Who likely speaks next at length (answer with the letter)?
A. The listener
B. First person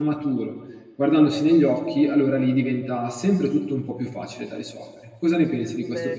A